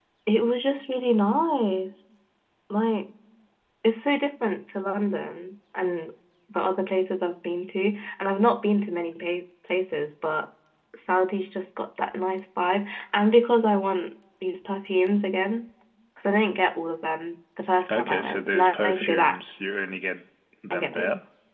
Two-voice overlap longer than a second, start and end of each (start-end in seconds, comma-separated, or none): 17.9-19.4